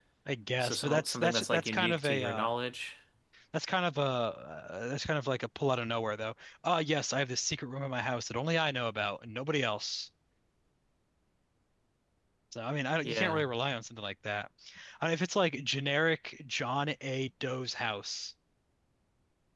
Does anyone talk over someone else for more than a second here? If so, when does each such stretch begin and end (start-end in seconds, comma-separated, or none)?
0.6-2.5